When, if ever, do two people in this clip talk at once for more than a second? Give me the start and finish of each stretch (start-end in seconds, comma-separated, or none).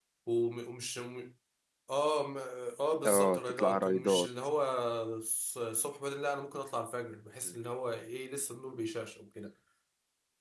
3.0-4.3